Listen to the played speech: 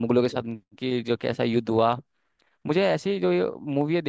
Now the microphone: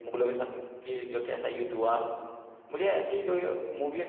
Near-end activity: none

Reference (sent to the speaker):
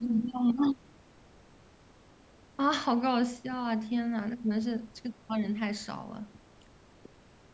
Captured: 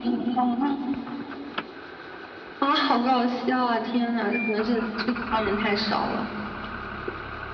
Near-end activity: none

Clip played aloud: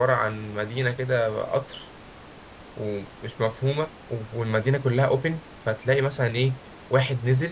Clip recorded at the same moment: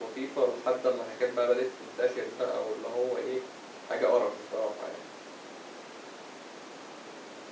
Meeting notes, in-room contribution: present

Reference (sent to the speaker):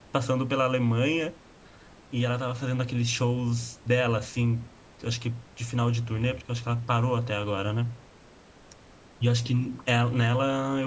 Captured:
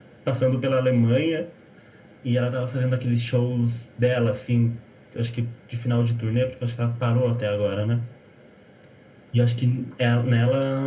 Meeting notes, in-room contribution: none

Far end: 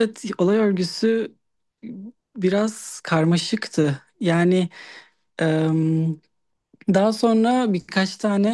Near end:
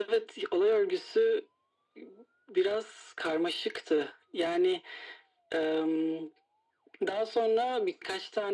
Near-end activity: none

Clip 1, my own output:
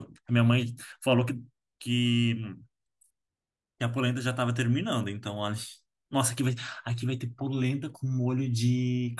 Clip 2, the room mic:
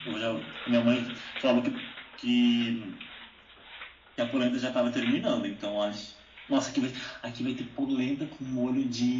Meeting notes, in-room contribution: none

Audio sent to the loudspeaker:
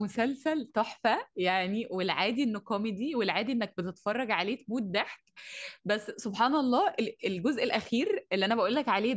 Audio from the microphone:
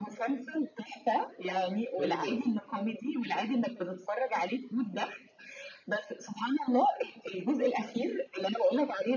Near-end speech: present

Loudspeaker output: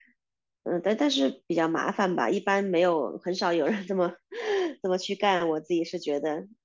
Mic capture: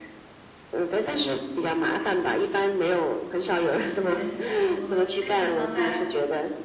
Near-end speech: present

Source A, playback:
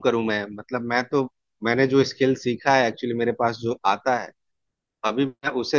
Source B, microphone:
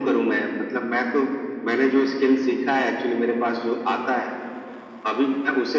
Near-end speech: none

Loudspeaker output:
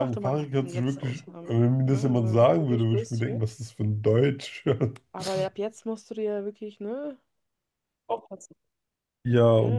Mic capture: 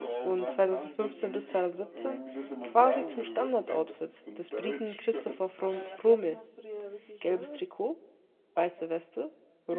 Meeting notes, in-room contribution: present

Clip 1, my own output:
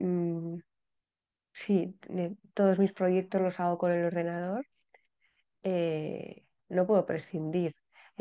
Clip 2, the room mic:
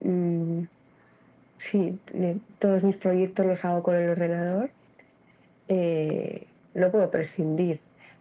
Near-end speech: none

